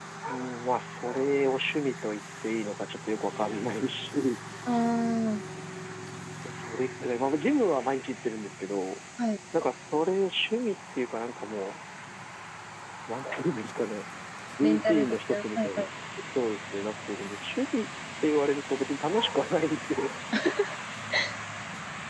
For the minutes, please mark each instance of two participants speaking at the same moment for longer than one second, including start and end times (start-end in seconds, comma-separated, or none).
14.6-15.9